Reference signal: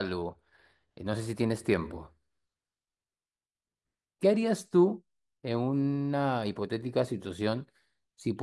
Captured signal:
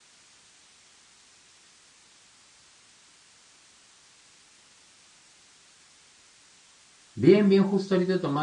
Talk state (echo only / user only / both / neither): user only